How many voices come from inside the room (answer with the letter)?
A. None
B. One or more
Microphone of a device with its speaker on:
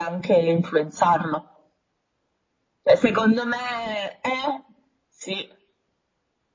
A